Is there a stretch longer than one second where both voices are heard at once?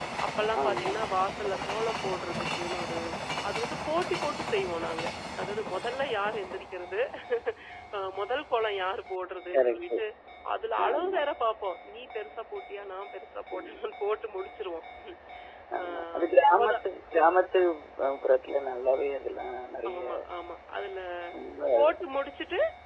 No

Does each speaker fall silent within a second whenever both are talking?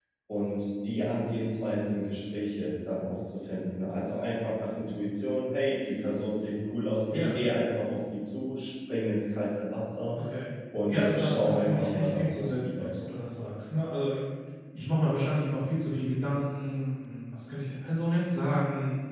No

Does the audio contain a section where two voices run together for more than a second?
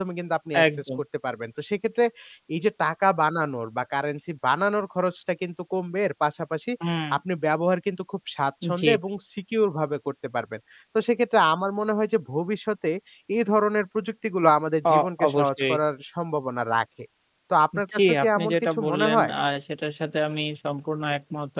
Yes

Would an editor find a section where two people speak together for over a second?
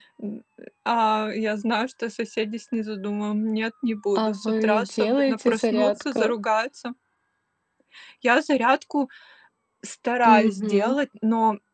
Yes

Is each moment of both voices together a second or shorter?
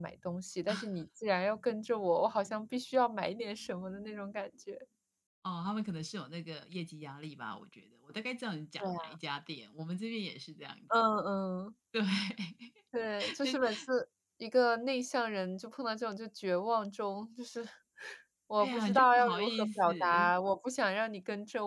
No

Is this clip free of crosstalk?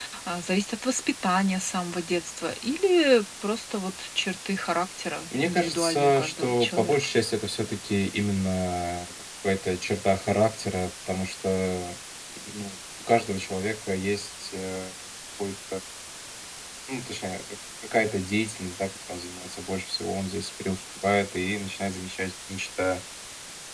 No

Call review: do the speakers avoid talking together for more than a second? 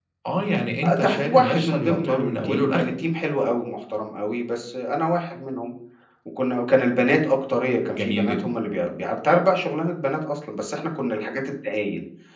No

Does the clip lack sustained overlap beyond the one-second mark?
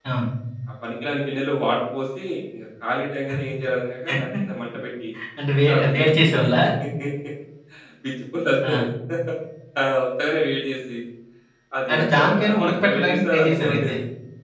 No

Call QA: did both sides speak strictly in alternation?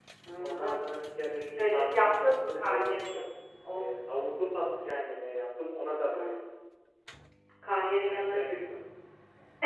No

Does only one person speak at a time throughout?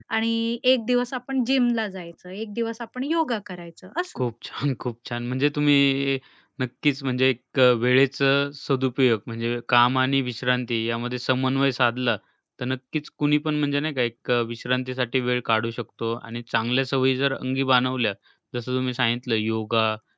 Yes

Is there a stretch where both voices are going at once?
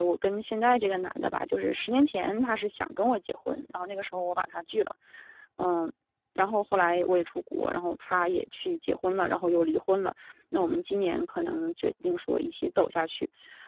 No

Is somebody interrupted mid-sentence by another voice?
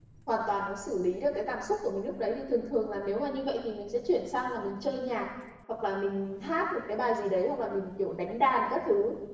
No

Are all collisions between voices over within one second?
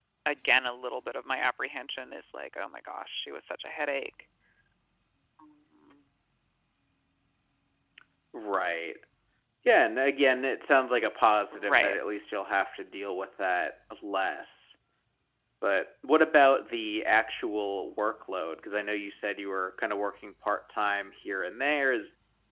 Yes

